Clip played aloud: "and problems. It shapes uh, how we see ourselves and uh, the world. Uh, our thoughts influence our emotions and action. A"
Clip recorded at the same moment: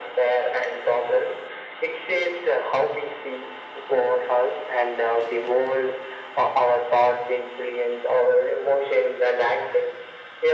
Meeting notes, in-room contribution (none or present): none